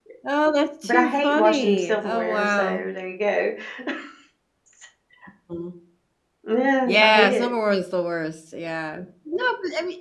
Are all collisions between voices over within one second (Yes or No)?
No